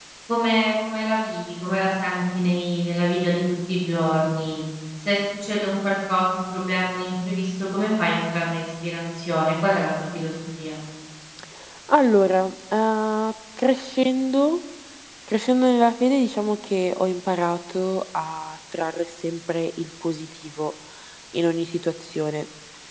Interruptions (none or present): none